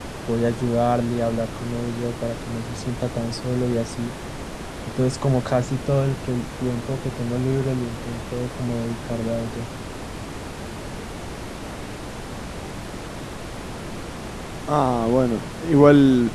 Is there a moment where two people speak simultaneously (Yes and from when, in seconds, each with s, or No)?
No